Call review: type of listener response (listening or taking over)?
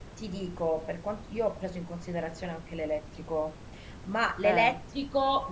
listening